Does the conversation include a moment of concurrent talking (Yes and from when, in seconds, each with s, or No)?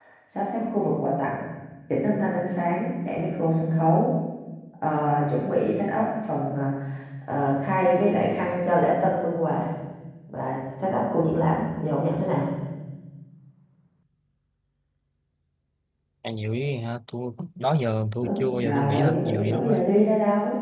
Yes, from 18.2 s